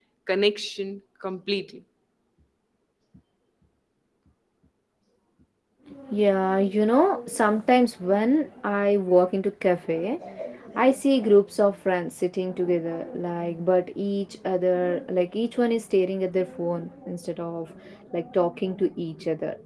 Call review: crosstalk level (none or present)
none